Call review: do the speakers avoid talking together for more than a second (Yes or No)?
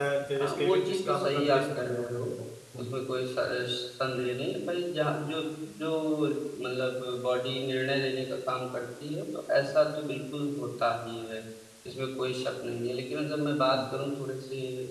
No